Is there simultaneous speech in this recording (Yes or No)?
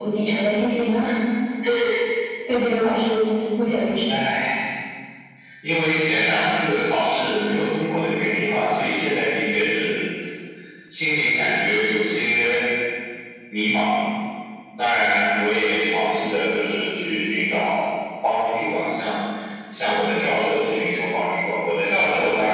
No